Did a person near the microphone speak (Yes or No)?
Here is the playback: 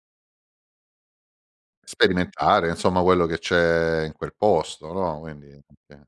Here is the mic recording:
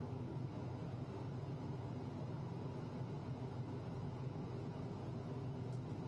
No